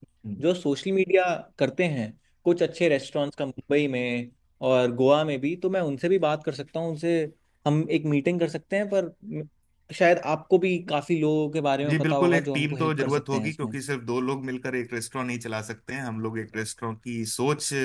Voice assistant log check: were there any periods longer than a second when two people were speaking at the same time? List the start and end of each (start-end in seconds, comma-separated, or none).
11.9-13.7